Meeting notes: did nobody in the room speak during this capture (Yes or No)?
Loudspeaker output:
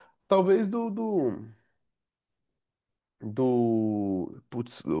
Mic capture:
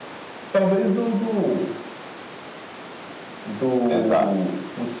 No